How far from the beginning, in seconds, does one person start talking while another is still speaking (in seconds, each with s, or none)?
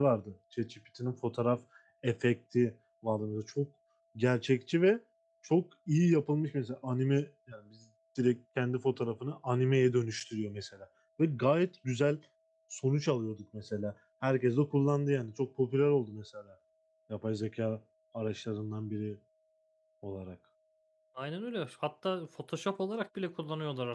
none